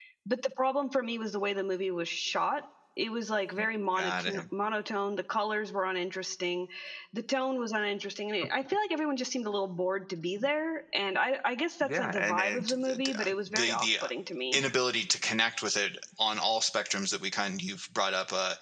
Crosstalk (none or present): present